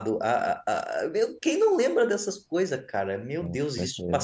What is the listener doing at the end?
listening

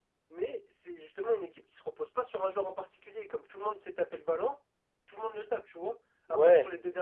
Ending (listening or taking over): listening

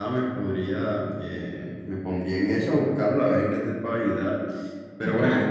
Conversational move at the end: listening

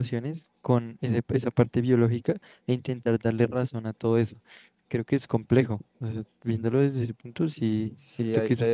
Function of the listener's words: taking over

